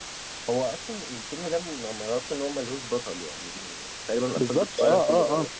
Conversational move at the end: taking over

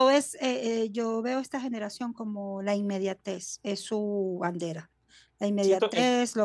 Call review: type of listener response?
listening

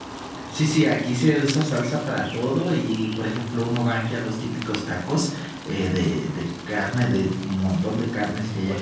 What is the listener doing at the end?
taking over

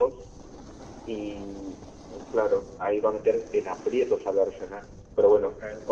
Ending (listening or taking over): listening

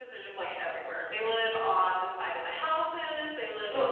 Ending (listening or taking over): listening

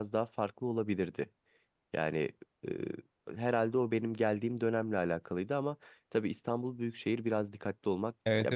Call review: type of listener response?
taking over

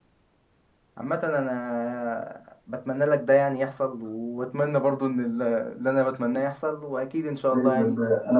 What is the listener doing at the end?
taking over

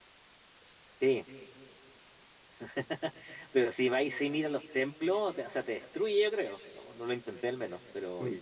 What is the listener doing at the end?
taking over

